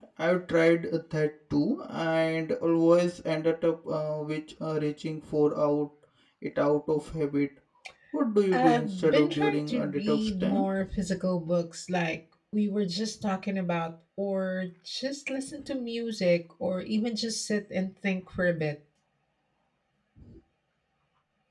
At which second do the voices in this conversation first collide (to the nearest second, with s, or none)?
9 s